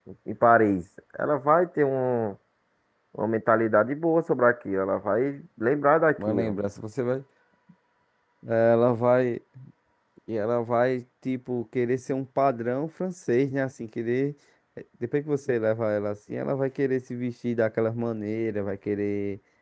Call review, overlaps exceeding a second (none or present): none